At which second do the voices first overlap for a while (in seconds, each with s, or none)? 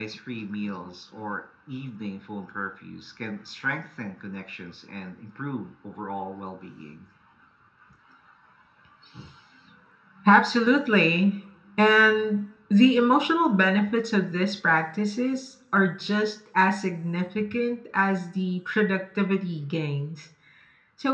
none